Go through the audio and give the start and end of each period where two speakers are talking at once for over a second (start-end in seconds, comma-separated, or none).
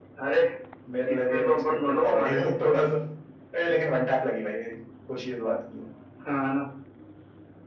1.1-2.6